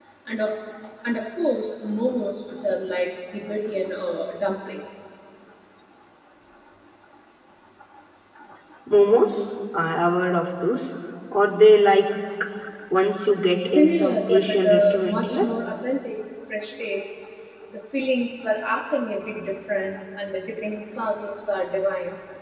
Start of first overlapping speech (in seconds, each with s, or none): 13.7 s